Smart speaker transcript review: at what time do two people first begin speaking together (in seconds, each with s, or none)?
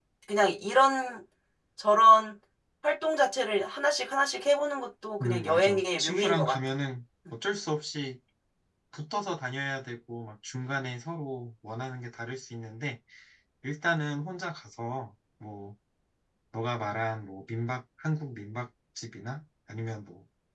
5.2 s